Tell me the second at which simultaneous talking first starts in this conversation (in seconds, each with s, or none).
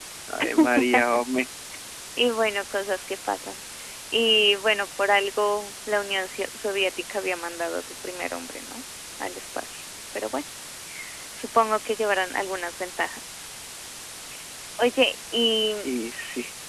none